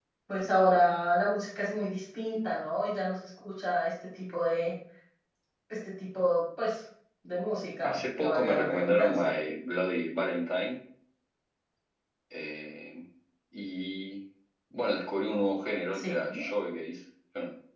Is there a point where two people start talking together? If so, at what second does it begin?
8 s

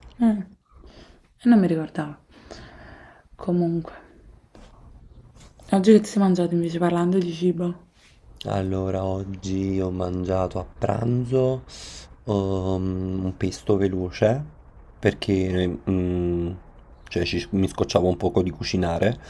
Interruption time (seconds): none

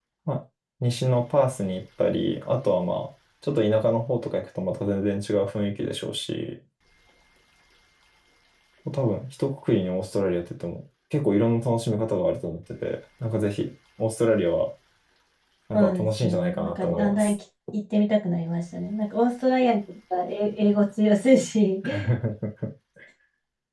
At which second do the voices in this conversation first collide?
16 s

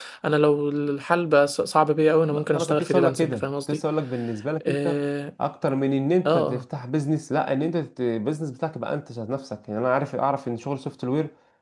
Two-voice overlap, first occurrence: 2 s

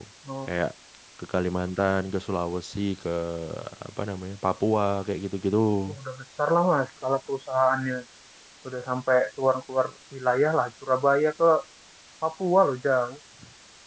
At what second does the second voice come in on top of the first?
none

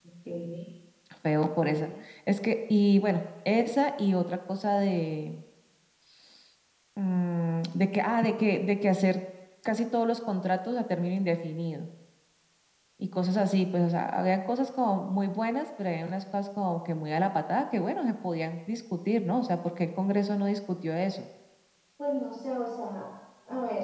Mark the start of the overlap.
none

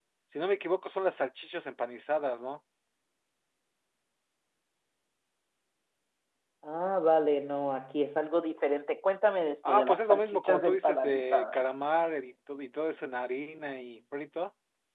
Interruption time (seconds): 10 s

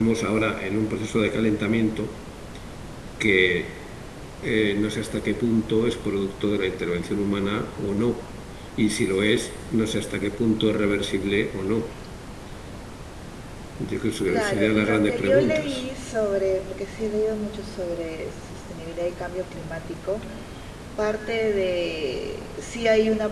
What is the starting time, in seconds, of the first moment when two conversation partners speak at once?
14 s

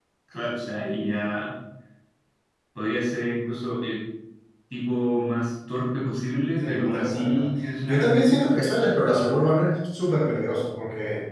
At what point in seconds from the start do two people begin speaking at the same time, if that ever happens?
7 s

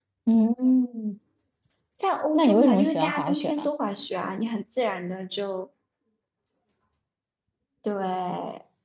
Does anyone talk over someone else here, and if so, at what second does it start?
2 s

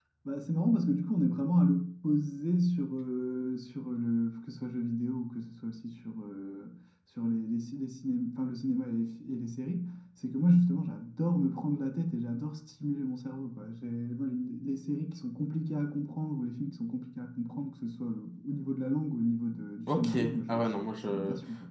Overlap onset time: 20 s

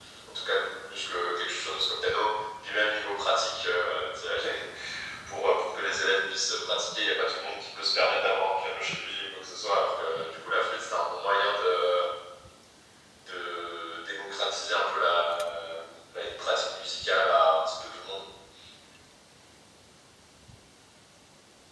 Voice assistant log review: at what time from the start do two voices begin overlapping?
none

